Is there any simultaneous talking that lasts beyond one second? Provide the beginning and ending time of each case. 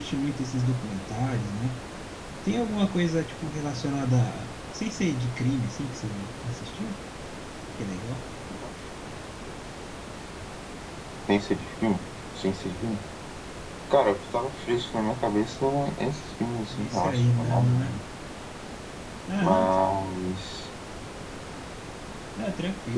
16.8-18.0

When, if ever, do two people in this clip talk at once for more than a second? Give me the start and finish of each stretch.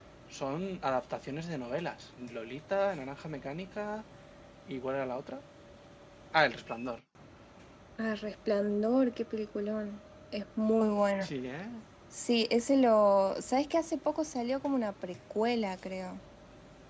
none

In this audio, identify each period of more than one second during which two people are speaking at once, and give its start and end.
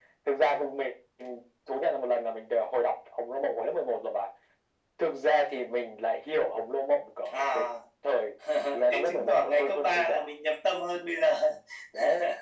8.9-10.2

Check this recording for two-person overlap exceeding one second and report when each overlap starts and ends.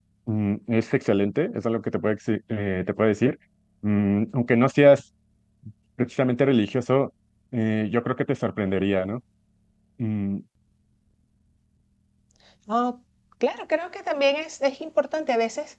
none

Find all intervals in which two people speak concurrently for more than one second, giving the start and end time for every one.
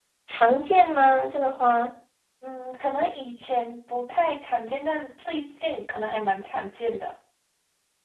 none

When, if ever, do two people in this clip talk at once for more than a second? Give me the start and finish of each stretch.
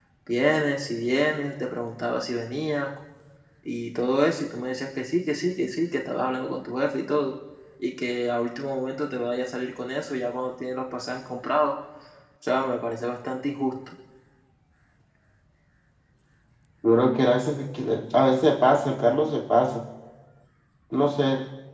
none

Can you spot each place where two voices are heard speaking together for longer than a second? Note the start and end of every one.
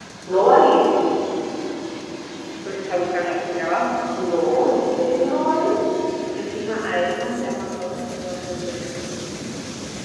none

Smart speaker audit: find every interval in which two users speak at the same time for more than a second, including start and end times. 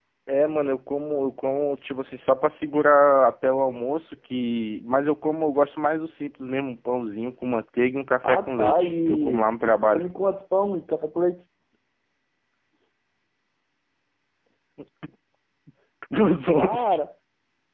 8.2-10.0

